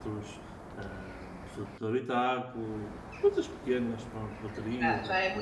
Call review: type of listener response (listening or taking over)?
taking over